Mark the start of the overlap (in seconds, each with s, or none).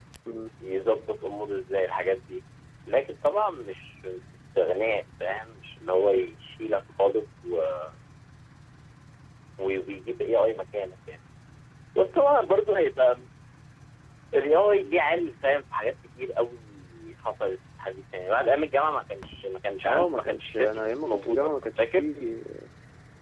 19.9 s